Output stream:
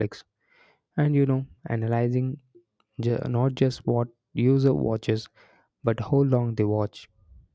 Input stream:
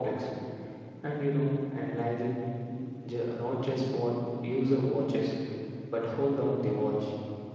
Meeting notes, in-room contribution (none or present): none